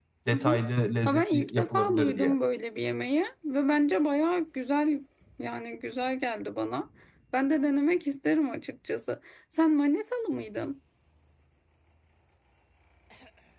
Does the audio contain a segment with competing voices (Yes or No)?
Yes